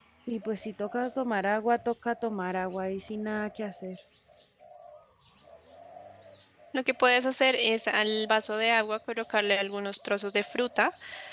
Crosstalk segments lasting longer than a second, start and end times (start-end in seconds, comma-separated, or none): none